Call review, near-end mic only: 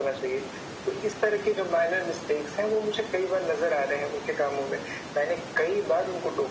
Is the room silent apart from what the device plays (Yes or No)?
Yes